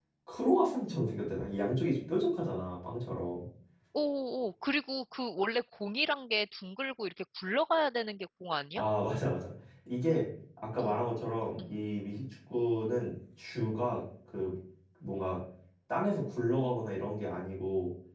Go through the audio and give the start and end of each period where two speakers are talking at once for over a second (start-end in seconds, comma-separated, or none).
none